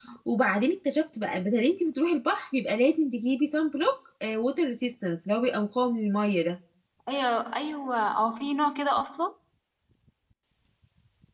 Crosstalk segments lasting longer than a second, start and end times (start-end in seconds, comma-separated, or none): none